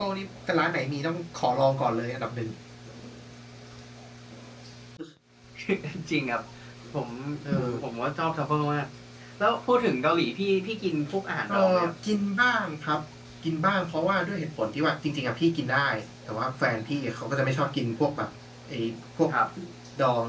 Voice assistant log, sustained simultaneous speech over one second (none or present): none